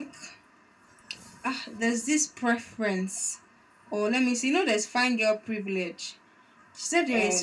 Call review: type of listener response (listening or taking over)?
listening